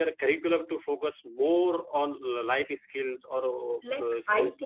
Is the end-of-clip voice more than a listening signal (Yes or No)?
Yes